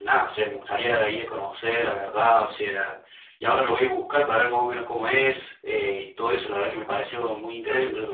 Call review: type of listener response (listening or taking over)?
taking over